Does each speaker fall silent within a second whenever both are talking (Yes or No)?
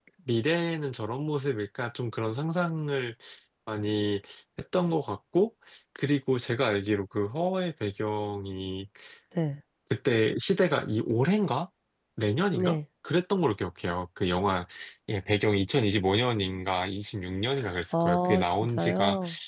No